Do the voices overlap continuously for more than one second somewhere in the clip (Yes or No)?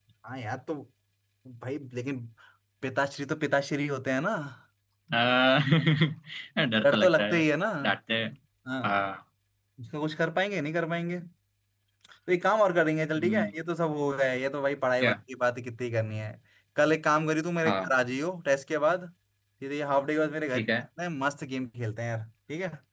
No